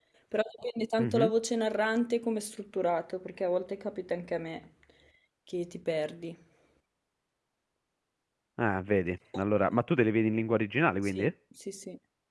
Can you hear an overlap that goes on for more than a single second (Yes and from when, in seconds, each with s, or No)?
No